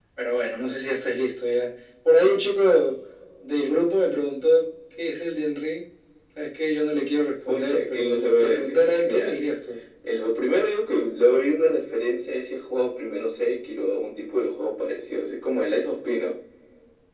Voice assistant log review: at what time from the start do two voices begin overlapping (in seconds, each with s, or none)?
7.5 s